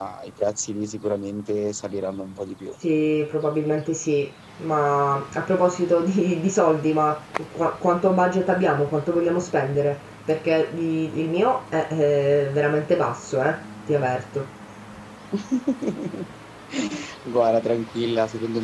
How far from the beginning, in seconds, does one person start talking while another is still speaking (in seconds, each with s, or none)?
none